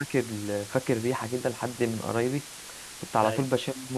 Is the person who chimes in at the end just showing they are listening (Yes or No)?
Yes